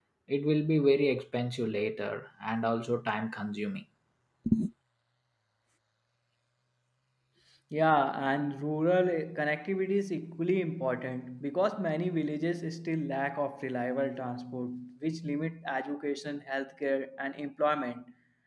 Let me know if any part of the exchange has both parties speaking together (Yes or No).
No